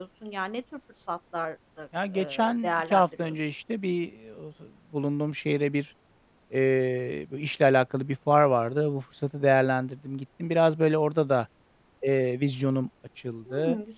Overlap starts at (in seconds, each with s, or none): 2.1 s